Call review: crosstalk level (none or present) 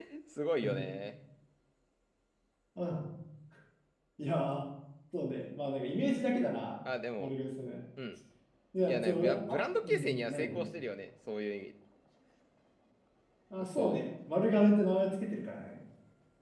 present